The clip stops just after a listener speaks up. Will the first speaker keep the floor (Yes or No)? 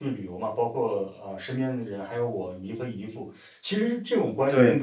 Yes